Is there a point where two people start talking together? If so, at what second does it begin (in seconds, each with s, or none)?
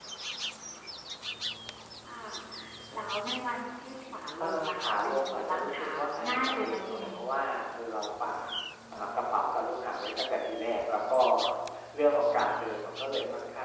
4.4 s